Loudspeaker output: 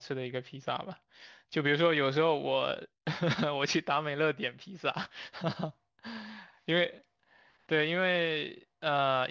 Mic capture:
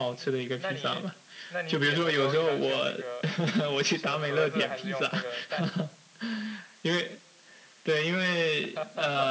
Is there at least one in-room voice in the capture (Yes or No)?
Yes